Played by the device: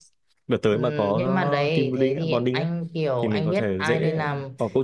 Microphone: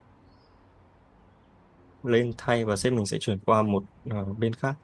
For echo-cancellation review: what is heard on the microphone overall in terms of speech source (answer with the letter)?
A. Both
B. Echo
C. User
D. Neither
C